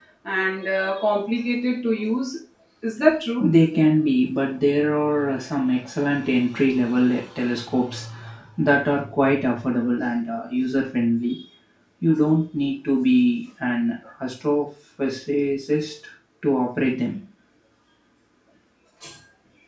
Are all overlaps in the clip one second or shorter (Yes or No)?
Yes